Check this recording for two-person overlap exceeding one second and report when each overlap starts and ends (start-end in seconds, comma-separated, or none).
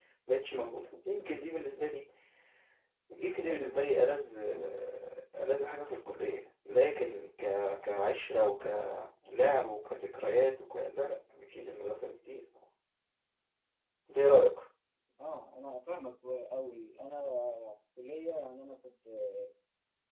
none